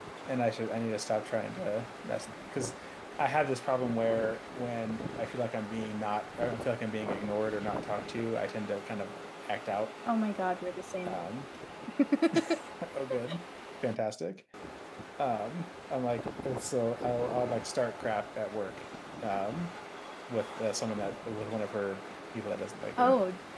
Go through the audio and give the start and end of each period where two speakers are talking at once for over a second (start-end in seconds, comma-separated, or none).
none